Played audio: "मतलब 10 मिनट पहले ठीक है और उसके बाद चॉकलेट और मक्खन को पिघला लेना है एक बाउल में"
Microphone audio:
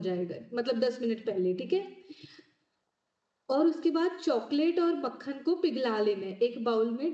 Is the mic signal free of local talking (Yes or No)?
Yes